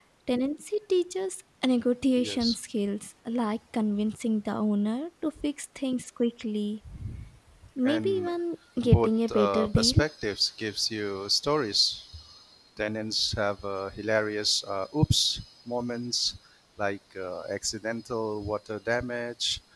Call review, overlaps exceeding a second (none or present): present